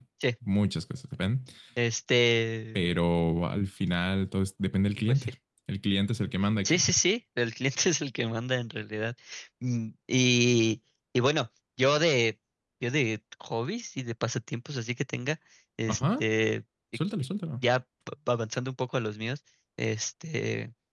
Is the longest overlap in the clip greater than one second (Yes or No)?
No